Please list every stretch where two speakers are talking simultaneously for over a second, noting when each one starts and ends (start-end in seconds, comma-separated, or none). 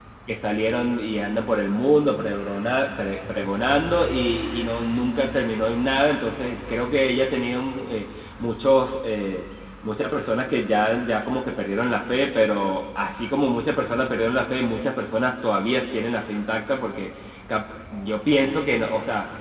none